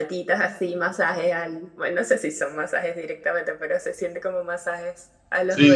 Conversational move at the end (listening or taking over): taking over